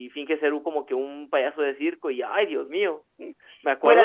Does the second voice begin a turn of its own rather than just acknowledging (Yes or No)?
Yes